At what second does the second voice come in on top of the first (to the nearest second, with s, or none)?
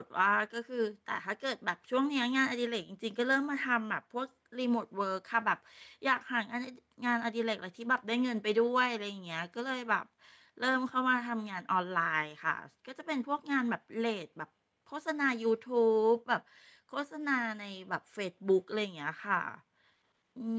none